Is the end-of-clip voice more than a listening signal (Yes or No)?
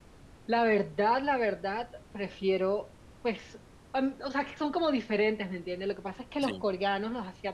No